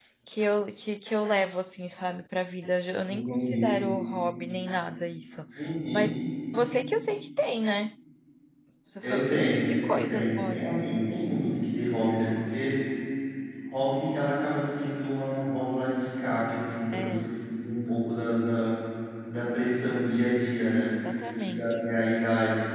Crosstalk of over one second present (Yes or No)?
Yes